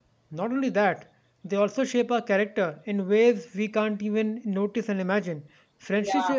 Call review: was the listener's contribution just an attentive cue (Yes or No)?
Yes